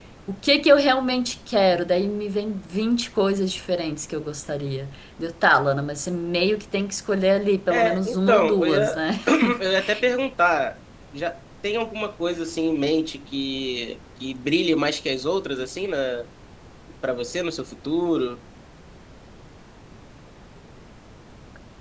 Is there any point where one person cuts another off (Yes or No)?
Yes